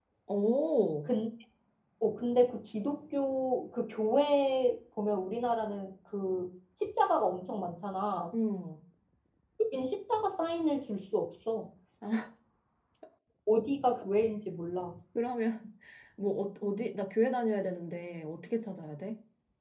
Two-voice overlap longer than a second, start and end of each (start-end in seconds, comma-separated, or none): none